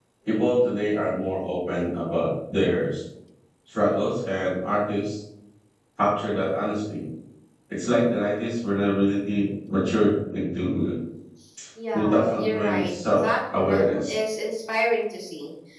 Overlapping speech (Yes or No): Yes